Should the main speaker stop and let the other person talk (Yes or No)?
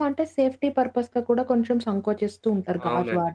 Yes